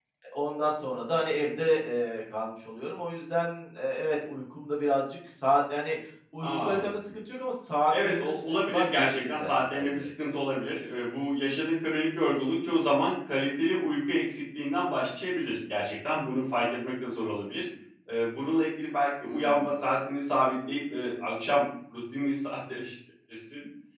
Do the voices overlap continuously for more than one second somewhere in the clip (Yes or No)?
Yes